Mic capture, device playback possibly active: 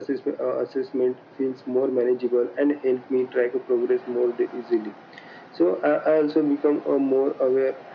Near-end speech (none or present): none